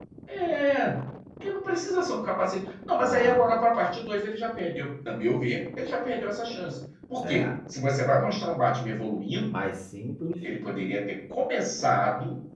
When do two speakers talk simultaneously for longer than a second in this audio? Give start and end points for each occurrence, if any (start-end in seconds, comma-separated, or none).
none